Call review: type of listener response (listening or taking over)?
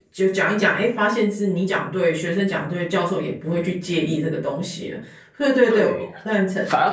taking over